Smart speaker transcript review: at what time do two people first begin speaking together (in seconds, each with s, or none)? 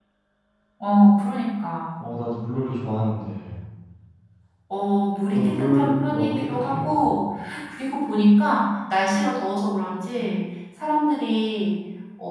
5.3 s